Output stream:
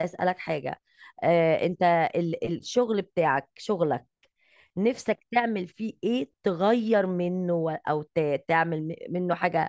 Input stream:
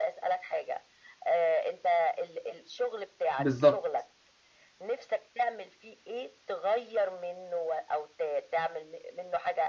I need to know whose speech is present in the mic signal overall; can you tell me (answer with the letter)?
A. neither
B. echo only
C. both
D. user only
C